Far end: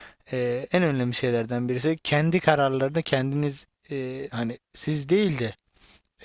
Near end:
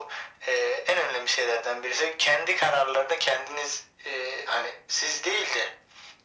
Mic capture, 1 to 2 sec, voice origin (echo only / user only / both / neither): echo only